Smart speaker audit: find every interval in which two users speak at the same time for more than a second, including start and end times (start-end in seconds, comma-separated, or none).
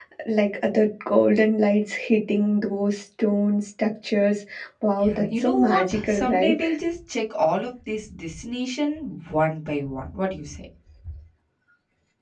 5.0-6.6